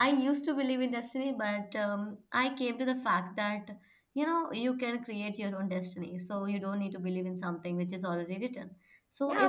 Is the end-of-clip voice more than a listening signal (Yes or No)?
Yes